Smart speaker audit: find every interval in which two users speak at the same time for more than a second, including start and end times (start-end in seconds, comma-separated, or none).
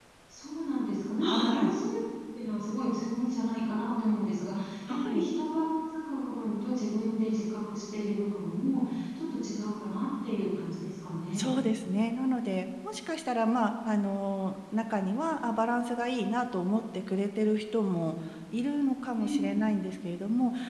none